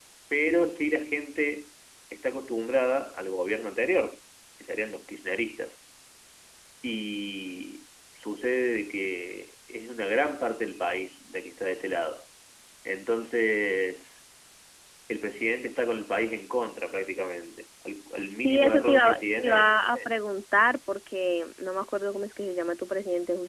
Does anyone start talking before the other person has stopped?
Yes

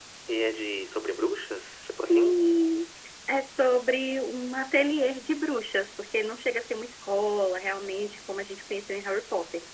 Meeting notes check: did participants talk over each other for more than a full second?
No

